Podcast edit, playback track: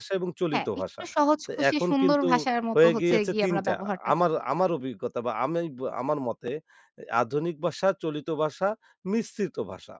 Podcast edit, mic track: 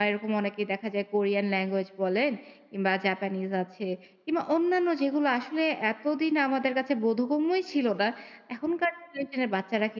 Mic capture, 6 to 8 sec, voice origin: user only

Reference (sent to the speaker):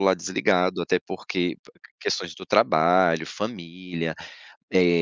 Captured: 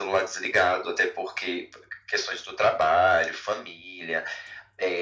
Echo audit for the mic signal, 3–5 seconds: echo only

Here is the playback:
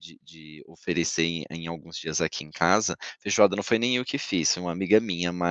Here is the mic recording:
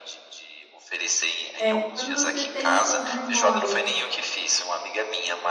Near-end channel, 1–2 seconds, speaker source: both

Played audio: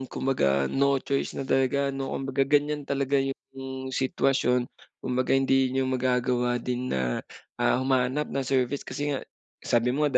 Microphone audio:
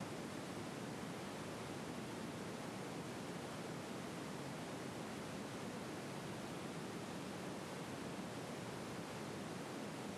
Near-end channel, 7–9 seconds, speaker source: neither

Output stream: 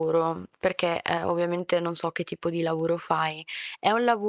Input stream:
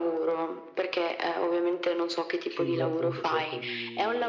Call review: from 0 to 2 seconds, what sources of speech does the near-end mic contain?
echo only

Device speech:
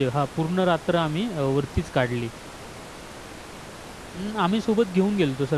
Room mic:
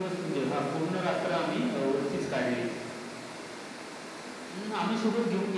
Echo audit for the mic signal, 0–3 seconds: echo only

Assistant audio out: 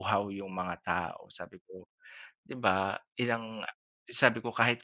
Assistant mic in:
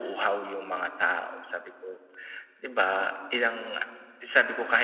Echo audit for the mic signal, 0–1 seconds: echo only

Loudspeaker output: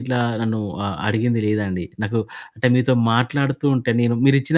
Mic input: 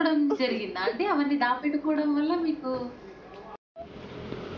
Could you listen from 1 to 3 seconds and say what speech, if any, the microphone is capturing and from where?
user only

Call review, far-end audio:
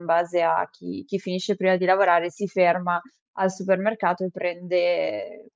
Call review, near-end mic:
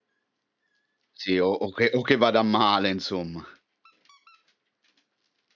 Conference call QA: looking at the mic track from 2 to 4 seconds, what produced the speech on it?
user only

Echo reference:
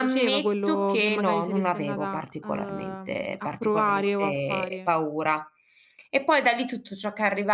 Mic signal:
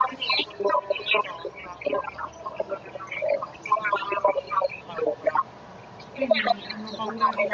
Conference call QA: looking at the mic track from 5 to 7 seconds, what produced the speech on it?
both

